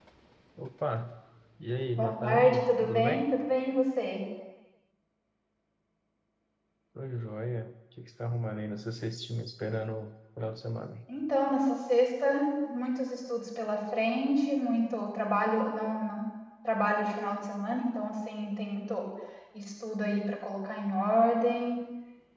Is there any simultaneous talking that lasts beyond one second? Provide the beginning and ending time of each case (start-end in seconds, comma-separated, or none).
1.9-3.3